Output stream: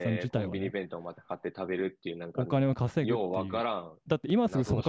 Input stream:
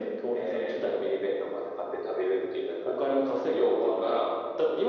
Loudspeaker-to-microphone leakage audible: Yes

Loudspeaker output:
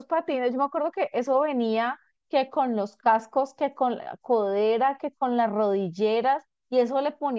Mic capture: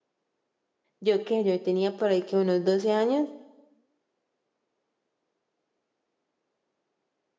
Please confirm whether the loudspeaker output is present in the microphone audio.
No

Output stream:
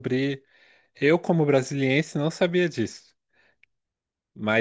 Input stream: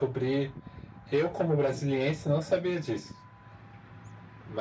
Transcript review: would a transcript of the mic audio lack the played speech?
No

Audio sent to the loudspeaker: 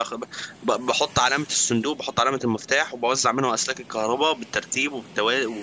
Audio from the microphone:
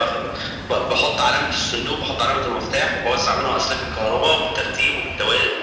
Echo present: Yes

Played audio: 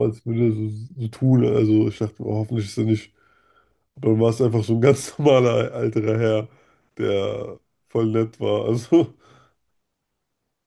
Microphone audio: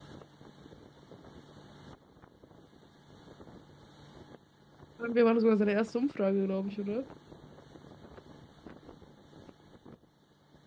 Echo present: No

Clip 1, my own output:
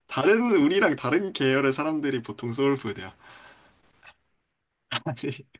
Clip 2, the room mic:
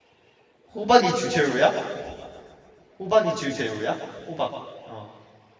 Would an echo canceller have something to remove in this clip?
No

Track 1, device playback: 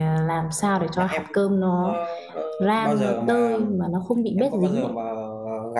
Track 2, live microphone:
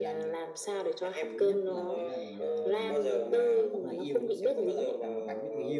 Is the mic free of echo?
No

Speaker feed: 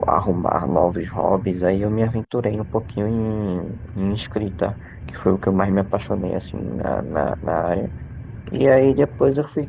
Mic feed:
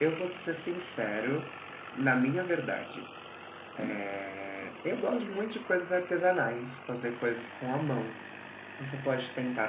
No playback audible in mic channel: Yes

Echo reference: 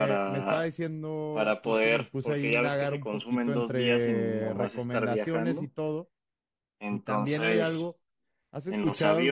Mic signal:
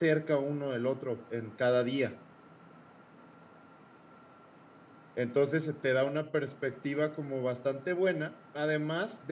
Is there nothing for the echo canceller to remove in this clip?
Yes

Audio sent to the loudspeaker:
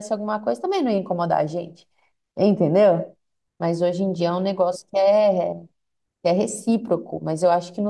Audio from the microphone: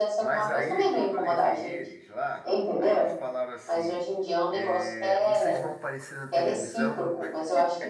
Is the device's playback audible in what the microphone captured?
Yes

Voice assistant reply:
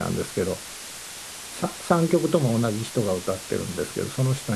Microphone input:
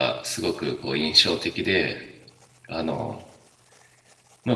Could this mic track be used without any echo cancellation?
Yes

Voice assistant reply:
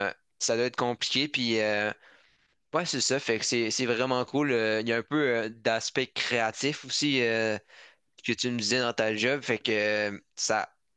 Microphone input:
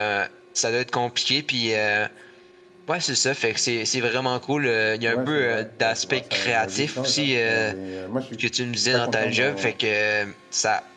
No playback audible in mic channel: No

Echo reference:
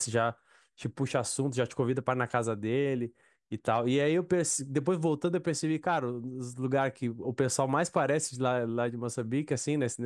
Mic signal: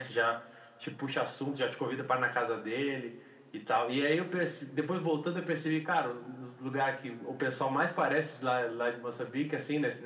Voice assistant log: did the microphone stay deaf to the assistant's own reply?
No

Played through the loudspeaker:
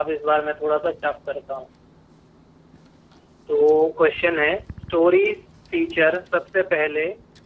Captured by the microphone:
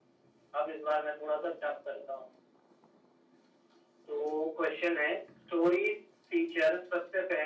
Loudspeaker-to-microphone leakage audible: Yes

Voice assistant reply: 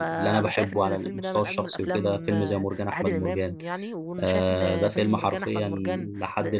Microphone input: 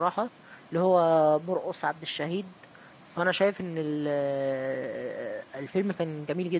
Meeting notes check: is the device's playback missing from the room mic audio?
Yes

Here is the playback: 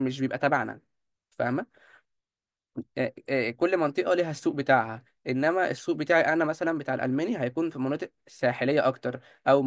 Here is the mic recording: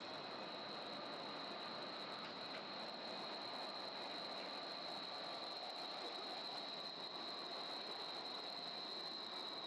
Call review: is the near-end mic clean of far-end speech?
Yes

